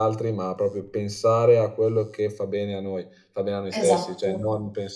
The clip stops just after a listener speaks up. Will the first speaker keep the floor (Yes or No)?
Yes